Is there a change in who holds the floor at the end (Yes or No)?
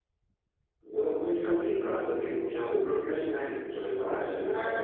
Yes